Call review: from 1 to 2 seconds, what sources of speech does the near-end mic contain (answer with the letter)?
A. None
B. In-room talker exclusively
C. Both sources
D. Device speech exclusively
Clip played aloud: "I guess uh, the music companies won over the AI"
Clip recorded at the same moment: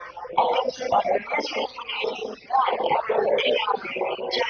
D